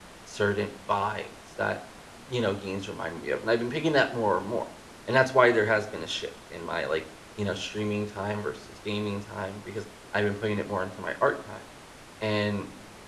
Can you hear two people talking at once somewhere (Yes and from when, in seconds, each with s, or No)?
No